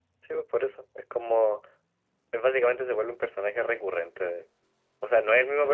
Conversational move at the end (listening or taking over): listening